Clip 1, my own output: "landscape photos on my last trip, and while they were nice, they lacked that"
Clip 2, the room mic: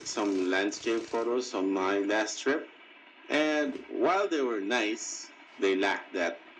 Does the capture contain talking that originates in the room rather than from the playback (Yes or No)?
No